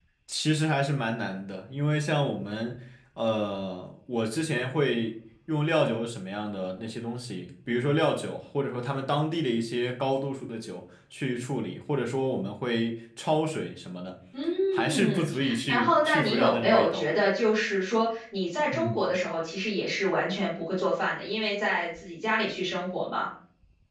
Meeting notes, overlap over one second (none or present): present